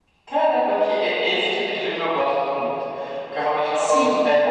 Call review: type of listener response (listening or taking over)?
listening